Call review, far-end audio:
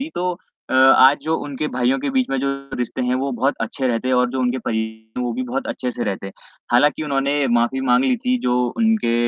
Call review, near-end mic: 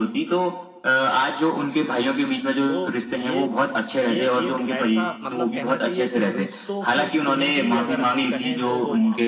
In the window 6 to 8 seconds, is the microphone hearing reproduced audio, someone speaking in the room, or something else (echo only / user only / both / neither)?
both